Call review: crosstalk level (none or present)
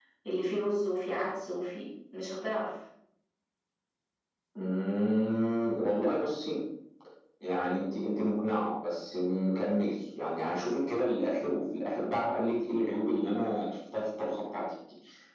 none